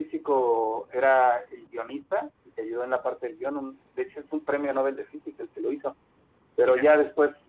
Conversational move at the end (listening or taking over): listening